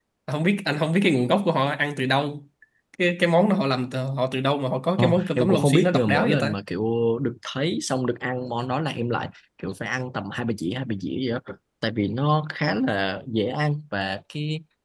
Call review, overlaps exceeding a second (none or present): present